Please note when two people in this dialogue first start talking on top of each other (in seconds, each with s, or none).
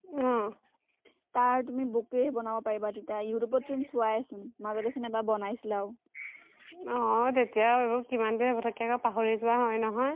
none